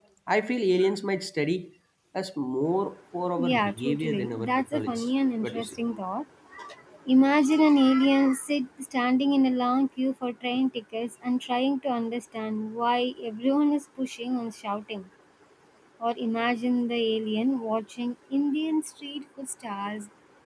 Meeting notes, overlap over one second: present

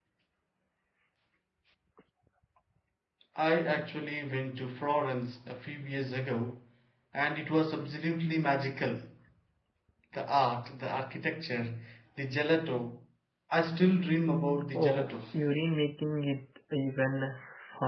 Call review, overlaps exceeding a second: none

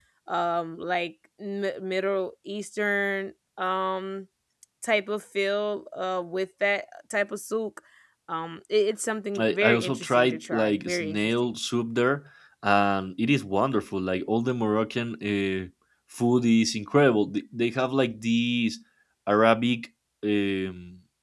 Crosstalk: present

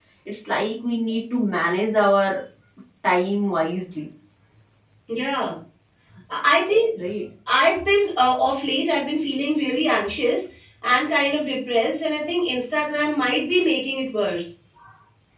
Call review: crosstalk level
none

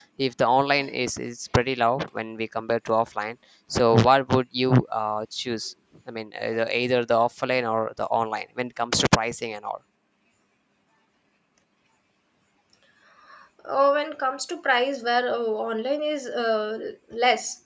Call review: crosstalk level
none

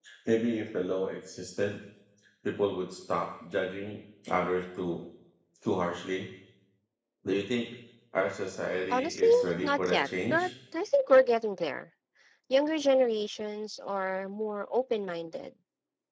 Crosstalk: present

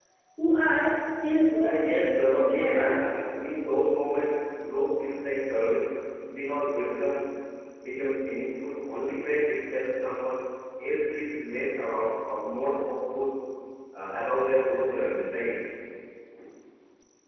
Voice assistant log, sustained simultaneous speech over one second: present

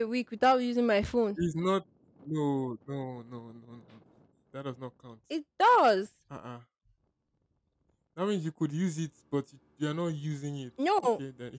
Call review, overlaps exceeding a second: none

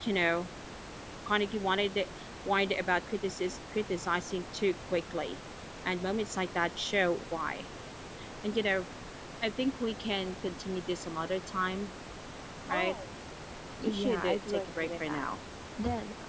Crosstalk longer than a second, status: present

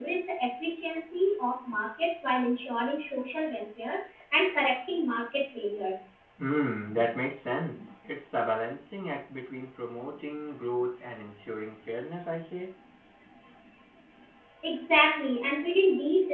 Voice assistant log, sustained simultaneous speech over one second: none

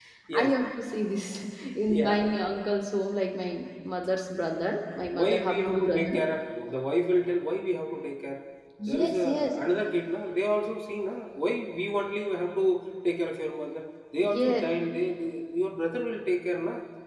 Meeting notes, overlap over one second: present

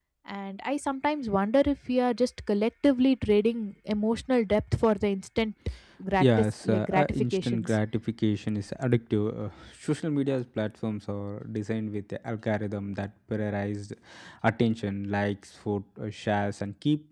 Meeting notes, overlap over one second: present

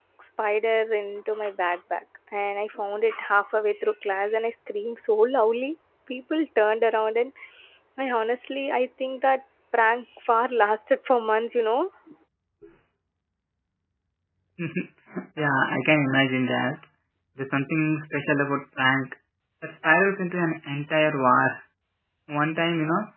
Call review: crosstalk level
none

